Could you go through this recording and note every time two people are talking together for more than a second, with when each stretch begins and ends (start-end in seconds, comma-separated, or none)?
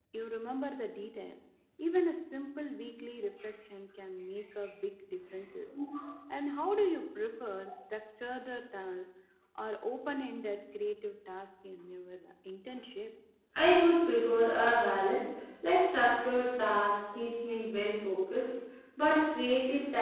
none